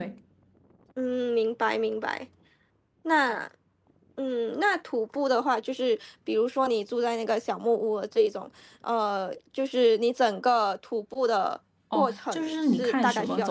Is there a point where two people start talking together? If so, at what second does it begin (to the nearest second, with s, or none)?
12 s